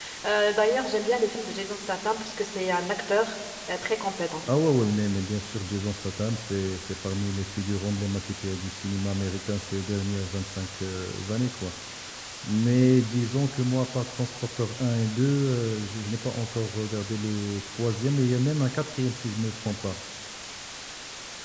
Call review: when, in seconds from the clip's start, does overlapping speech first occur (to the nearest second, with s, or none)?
none